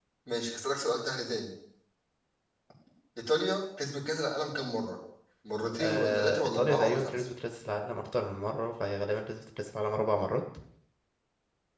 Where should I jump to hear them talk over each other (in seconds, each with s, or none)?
5.8 s